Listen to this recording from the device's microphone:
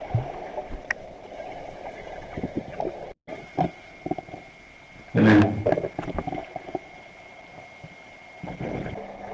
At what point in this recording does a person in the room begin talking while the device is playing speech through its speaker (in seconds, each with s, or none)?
5.1 s